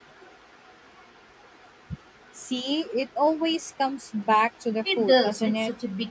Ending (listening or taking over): taking over